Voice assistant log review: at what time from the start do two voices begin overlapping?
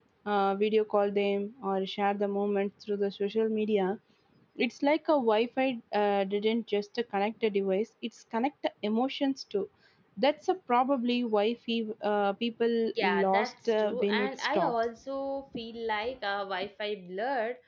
13 s

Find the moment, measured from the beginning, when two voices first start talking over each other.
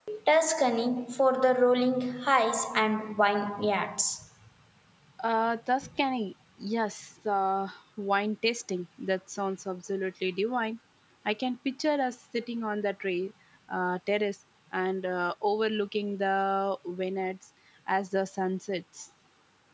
none

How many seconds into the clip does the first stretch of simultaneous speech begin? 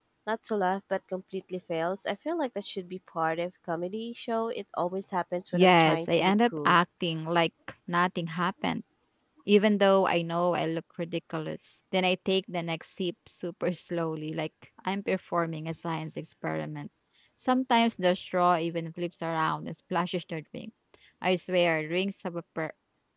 6 s

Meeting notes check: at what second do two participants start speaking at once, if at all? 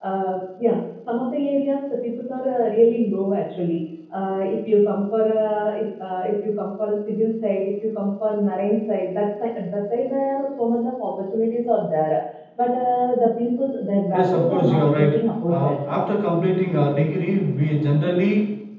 14 s

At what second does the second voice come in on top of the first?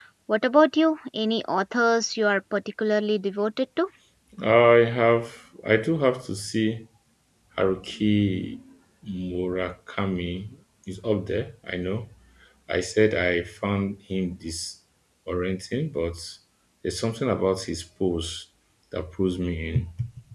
none

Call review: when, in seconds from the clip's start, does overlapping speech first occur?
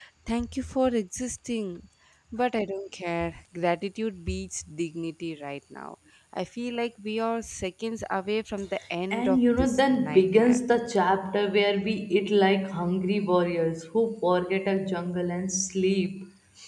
9 s

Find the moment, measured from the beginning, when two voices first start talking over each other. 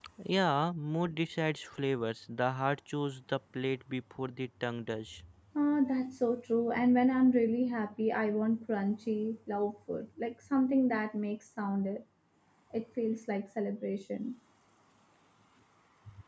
none

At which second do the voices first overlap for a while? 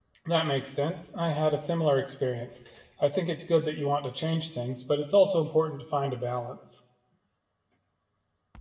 none

